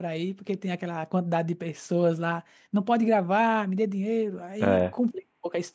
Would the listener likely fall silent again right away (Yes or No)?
Yes